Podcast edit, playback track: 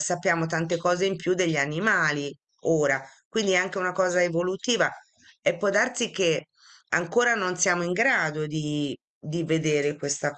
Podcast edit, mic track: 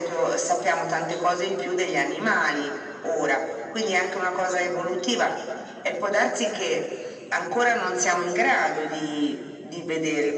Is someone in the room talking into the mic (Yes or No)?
No